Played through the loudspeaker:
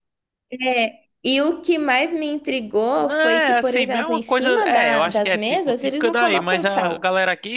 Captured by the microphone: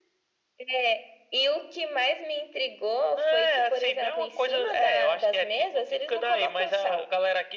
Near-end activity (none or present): none